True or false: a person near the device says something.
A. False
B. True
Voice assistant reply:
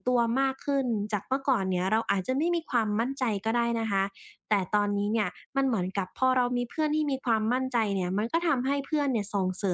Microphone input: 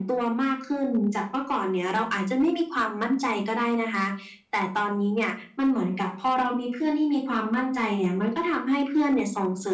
A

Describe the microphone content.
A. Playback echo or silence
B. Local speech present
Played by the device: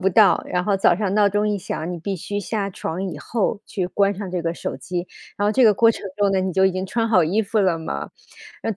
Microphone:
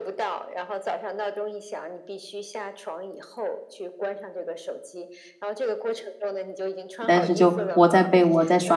B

